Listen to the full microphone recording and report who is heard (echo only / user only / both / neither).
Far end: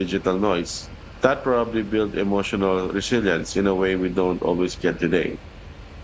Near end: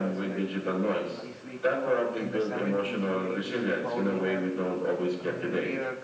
both